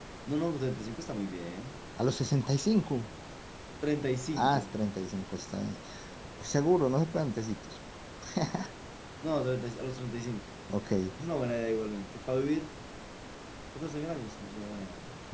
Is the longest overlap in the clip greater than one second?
No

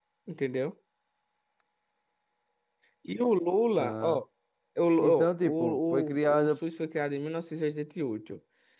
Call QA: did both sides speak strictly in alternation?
No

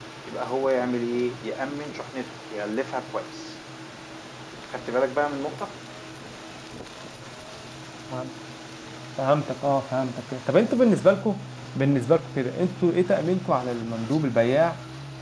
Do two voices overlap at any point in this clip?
No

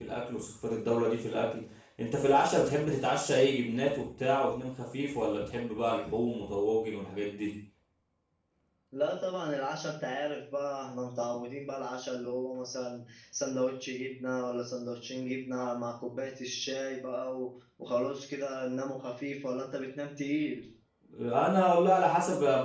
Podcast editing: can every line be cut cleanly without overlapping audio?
Yes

